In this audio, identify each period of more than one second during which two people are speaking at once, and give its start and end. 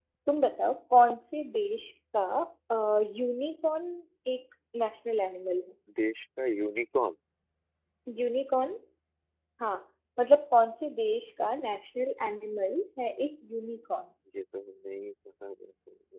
none

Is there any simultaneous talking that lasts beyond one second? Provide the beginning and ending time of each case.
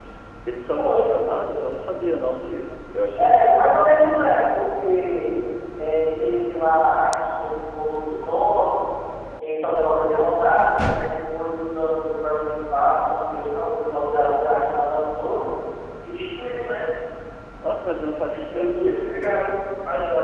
18.3-19.5

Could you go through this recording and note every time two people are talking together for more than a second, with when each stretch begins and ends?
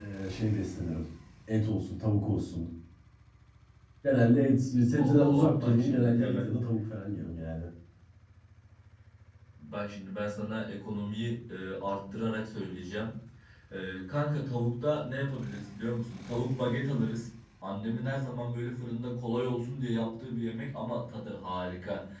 5.0-6.5

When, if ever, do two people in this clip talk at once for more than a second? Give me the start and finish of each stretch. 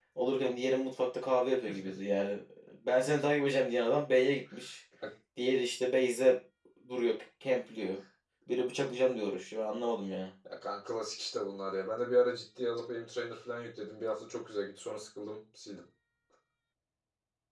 none

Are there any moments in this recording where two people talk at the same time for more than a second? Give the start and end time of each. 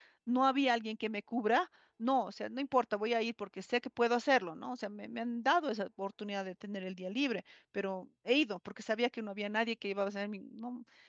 none

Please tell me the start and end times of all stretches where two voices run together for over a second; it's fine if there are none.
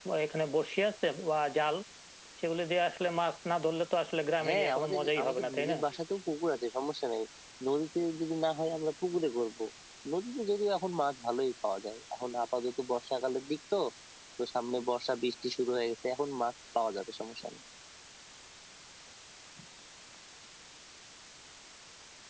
4.5-5.8

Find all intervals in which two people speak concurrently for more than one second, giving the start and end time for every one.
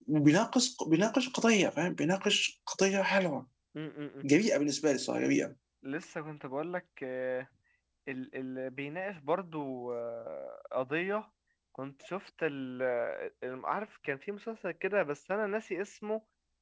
none

